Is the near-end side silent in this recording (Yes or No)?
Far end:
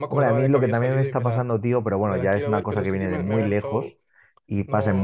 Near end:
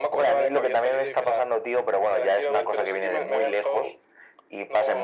Yes